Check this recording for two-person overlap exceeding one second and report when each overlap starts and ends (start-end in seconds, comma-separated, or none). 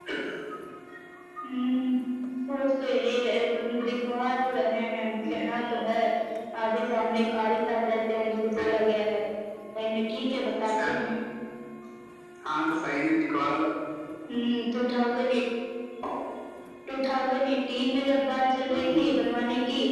none